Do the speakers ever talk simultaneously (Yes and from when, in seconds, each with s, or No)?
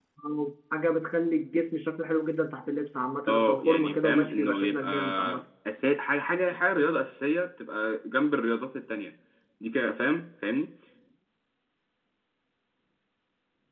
Yes, from 3.3 s